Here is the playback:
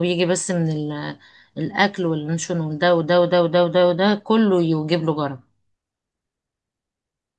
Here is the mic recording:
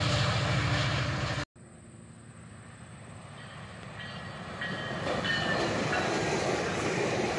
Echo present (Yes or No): No